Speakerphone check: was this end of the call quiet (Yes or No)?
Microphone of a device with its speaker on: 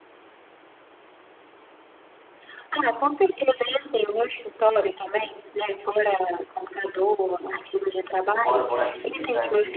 No